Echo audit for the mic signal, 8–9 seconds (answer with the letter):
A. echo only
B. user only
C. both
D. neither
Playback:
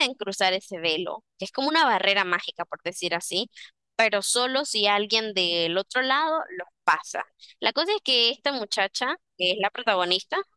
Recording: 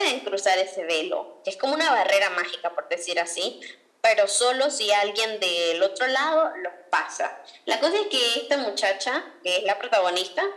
A